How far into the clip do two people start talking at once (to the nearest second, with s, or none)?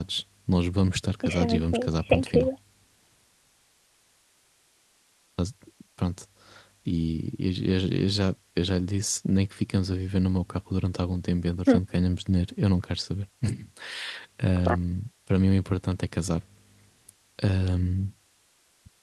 1 s